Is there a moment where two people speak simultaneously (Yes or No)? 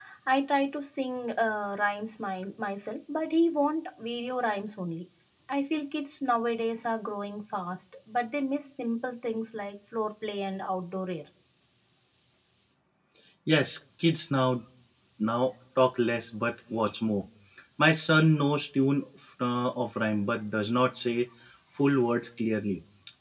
No